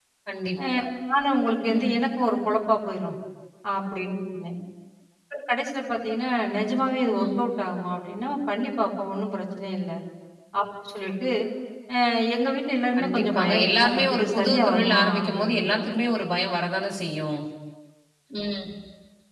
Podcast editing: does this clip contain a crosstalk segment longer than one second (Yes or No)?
Yes